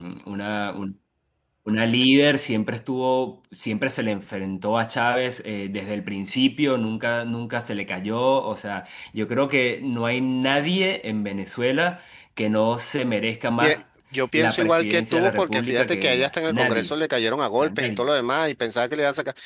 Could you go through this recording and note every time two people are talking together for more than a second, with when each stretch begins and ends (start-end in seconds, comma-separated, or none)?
14.3-16.9